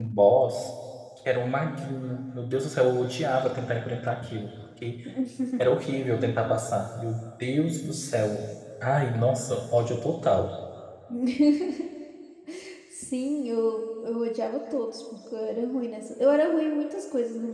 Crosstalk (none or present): none